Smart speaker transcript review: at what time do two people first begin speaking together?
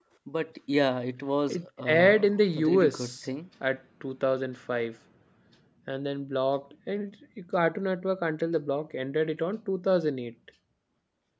1 s

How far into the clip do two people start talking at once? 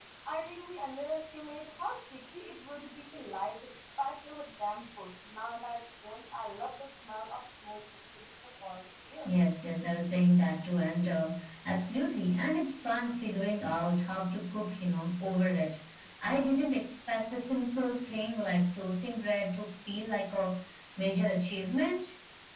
none

